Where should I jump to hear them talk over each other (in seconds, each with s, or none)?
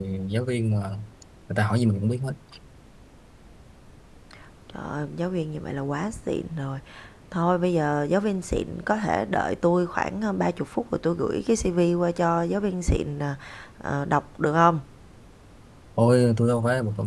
none